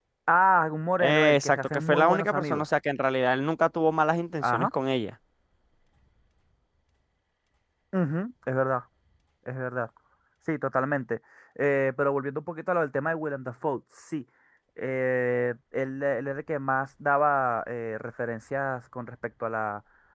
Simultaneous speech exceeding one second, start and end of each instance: 1.0-2.6

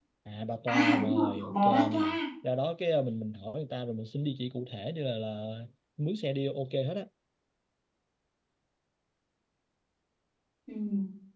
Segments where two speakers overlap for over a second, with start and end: 0.7-2.2

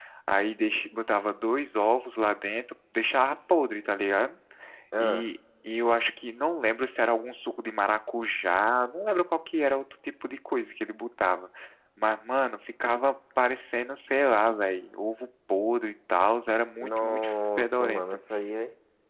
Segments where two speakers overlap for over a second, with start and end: 16.8-18.0

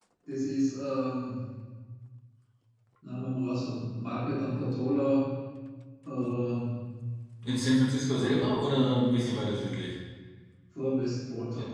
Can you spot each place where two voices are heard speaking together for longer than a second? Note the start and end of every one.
8.0-9.4

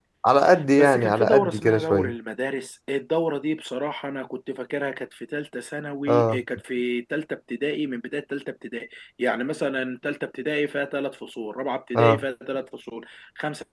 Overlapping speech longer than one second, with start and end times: 0.8-2.1

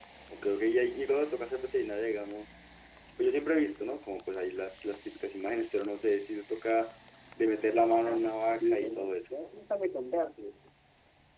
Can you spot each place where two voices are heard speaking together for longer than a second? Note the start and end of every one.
8.0-9.4

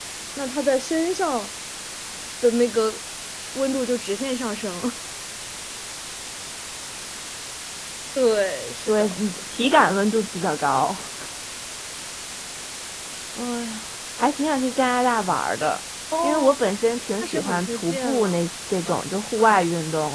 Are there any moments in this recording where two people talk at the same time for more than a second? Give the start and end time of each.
17.2-18.4

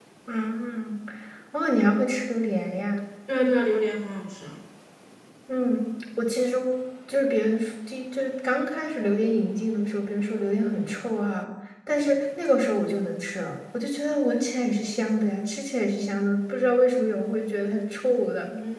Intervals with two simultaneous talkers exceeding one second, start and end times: none

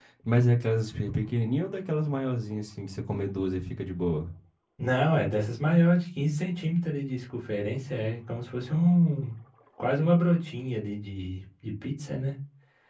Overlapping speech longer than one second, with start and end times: none

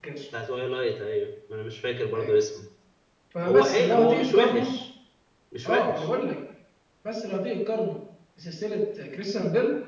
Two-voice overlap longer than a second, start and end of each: 3.5-4.7

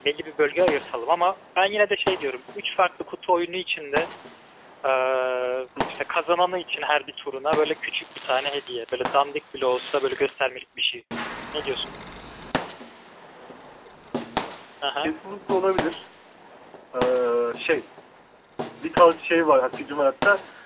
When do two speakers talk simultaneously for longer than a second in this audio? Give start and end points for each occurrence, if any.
none

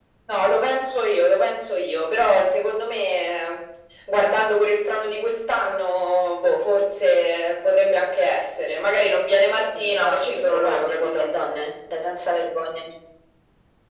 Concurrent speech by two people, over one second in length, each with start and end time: 9.8-11.3

